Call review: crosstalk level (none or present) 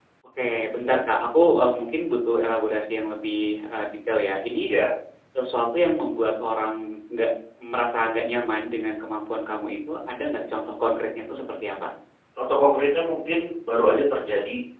none